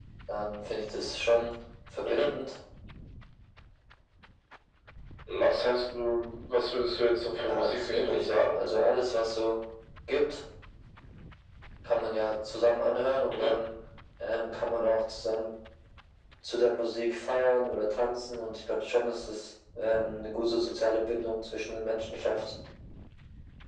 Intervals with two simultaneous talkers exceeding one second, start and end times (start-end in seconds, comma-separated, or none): 7.4-8.6